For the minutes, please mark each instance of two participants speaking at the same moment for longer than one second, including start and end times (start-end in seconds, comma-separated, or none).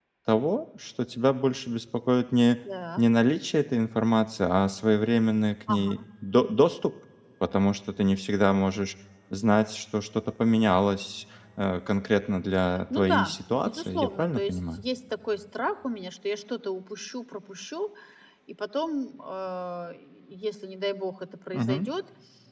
13.0-14.8